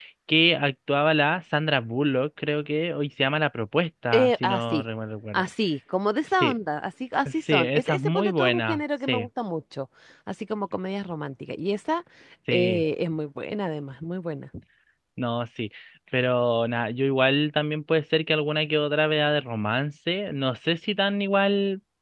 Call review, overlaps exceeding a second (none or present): present